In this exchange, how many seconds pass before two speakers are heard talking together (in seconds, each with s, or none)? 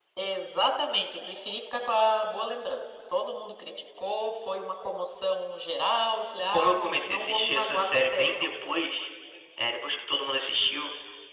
6.5 s